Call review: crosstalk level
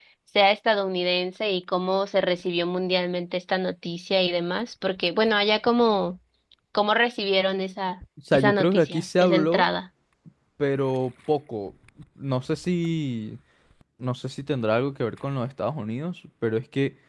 present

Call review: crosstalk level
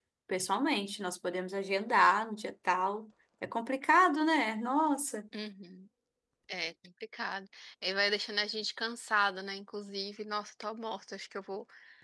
none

